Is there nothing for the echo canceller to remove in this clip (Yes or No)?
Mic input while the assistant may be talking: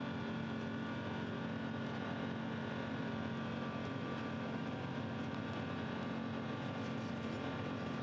Yes